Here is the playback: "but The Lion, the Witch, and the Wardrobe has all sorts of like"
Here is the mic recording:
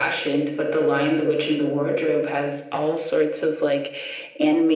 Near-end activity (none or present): none